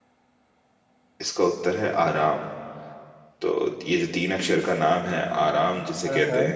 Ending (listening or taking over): listening